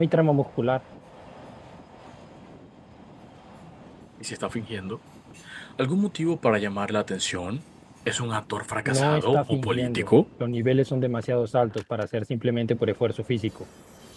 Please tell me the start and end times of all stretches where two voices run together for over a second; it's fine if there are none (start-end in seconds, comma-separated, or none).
8.8-10.1